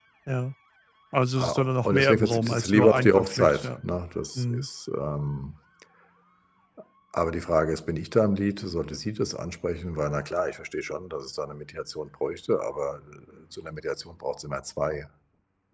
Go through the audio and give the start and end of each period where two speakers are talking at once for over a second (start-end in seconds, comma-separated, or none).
1.4-3.8